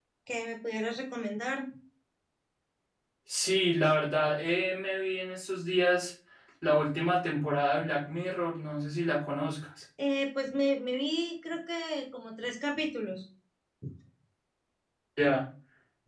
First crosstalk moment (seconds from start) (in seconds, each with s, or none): none